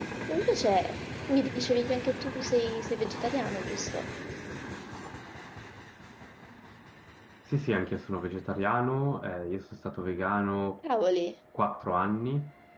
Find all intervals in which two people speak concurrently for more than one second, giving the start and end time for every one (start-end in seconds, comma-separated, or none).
none